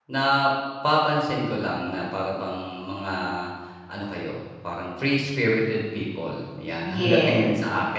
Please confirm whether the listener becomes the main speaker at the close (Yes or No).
No